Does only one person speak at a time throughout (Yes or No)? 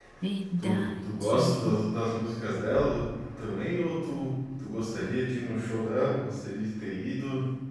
No